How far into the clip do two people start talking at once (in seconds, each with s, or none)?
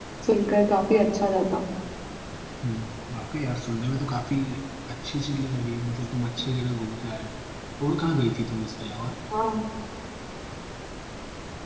none